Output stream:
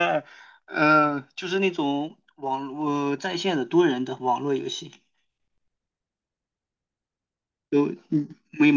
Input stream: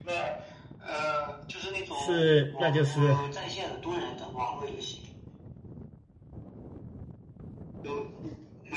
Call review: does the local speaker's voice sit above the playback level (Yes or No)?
Yes